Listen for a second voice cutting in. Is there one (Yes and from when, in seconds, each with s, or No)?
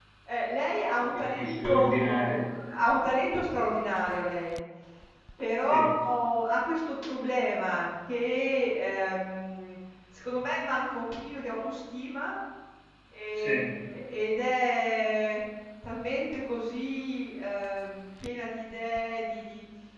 Yes, from 1.1 s